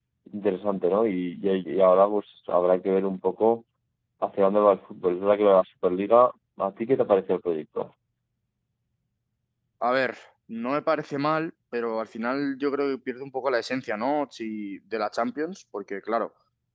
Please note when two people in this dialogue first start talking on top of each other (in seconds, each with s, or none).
none